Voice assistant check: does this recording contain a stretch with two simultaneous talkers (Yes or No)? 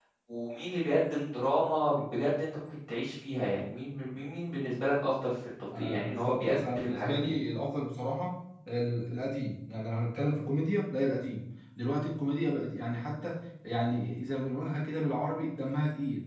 Yes